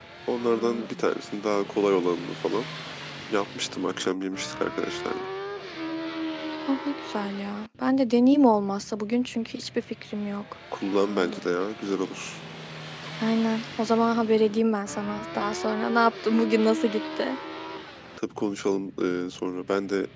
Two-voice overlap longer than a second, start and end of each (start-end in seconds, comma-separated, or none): none